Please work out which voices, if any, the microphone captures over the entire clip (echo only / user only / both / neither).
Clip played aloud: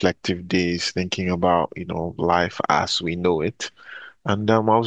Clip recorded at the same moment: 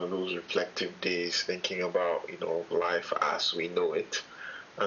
echo only